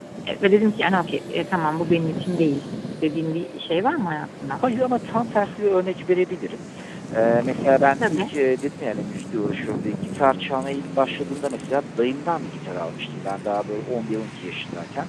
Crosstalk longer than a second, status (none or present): none